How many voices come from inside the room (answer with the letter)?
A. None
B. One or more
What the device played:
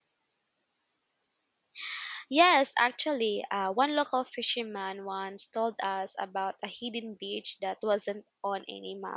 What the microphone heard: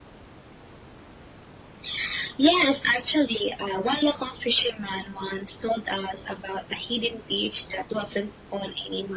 A